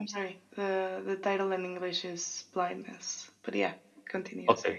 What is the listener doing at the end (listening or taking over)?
taking over